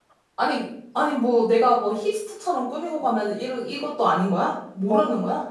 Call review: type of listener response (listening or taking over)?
taking over